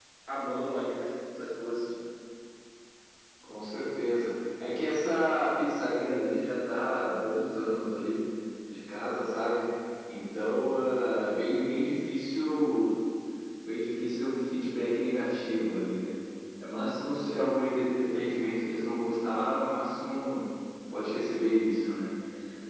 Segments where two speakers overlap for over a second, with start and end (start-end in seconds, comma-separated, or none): none